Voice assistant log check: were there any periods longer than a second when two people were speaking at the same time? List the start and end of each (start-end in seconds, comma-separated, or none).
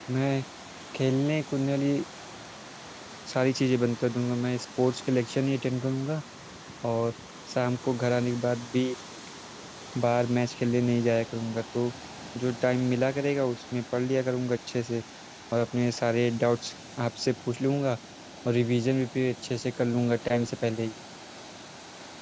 none